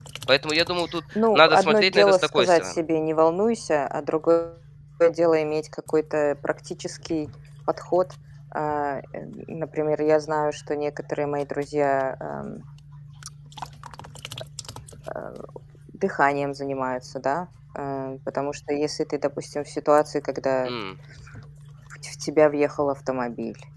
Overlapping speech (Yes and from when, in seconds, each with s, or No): Yes, from 1.1 s